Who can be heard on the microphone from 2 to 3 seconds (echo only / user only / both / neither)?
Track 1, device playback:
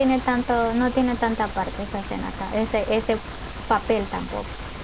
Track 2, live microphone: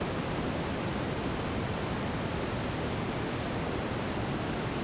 neither